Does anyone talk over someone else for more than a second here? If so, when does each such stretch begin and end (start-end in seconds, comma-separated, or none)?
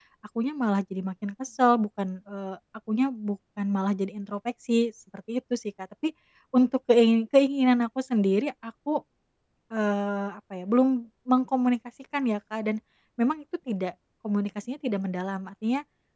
none